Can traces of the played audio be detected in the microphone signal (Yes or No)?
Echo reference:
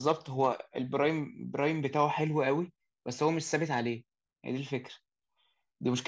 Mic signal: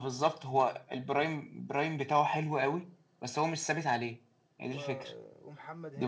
Yes